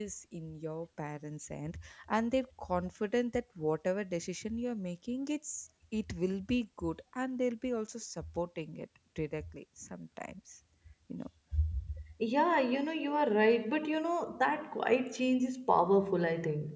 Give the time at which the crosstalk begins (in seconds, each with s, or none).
none